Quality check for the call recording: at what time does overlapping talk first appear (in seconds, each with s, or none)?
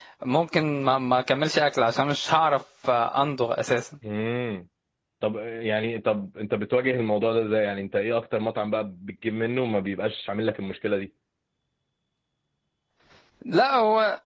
none